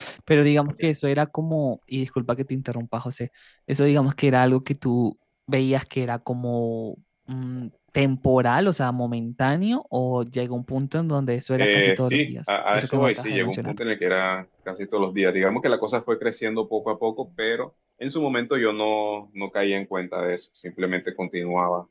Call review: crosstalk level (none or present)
present